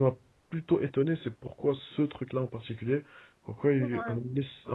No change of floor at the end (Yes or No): Yes